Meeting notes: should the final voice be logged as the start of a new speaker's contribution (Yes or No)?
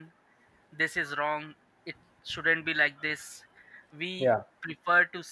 No